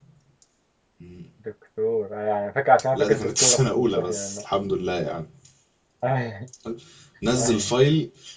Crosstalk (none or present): present